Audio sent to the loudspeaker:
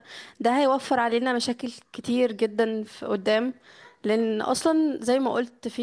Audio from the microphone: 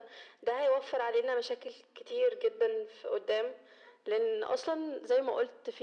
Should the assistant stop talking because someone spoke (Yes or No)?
No